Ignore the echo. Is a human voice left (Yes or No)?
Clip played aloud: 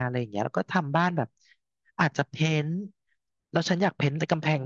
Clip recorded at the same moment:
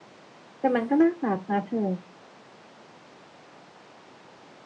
Yes